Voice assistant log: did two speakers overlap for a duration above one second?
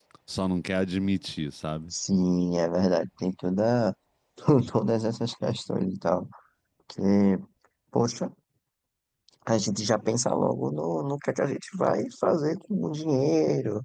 No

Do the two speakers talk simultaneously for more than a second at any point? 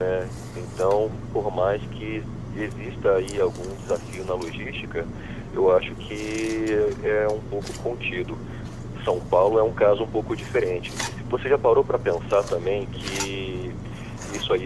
No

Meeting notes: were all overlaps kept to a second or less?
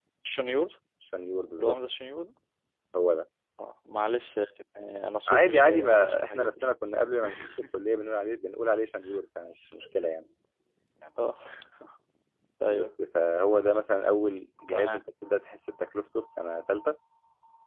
No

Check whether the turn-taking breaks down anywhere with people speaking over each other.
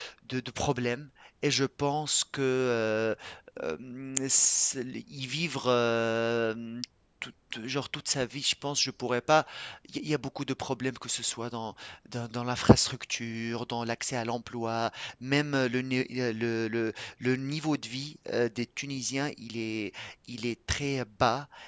No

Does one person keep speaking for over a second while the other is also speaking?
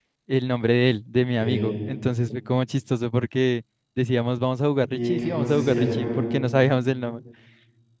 Yes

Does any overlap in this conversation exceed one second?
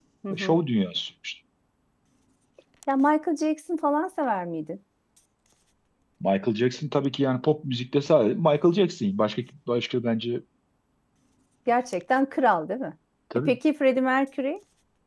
No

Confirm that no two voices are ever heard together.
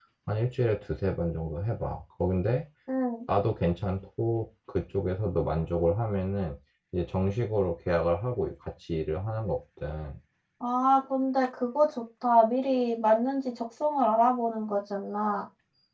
Yes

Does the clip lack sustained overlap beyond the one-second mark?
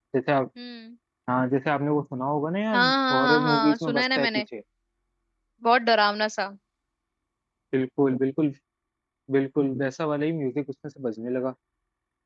No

